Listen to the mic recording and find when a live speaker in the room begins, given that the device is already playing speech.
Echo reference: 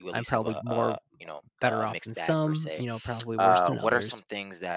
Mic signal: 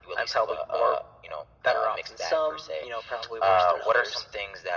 none

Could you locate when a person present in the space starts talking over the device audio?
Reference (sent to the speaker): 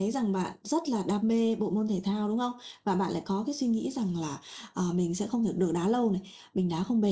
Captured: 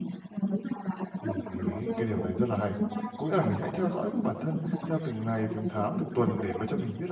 1.2 s

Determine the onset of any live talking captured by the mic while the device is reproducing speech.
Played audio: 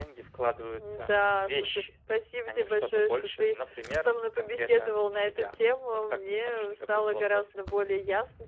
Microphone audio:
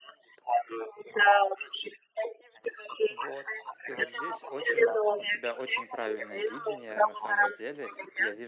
3.1 s

